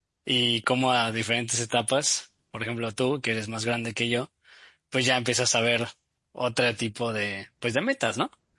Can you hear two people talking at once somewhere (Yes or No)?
No